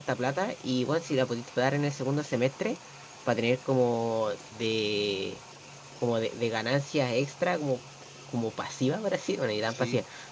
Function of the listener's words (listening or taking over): listening